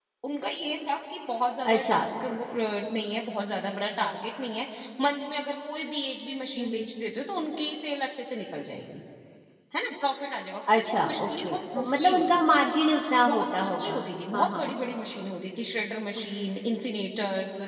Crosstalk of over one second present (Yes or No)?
Yes